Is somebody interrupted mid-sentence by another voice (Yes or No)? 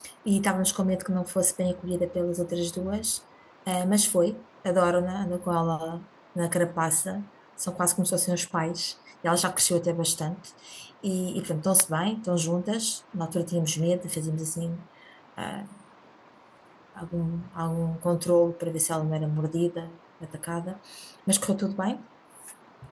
No